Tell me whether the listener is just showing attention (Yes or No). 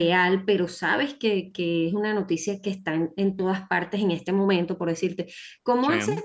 Yes